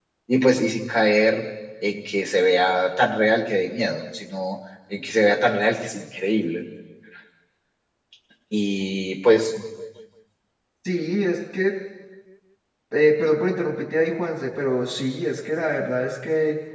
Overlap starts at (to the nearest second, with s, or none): none